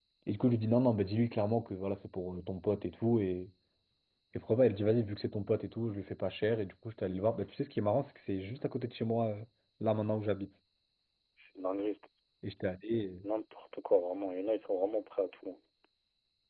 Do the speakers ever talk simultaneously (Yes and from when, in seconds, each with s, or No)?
No